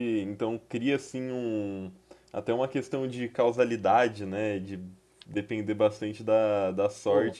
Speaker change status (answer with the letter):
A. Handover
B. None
B